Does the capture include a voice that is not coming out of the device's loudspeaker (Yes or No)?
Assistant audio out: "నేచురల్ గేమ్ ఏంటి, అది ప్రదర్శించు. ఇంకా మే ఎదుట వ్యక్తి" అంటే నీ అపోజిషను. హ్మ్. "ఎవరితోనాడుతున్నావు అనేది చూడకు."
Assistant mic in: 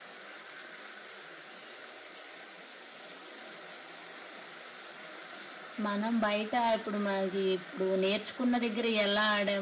Yes